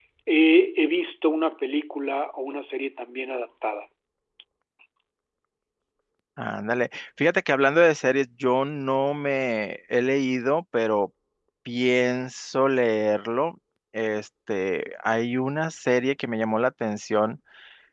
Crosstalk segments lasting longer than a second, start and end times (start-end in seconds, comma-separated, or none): none